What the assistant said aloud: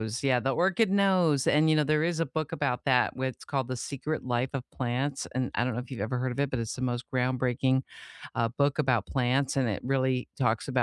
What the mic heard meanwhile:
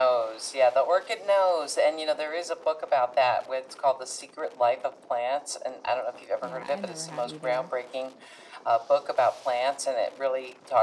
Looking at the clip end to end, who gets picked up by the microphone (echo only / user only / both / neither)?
both